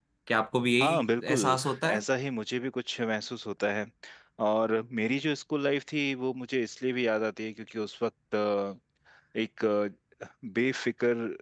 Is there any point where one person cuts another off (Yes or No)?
Yes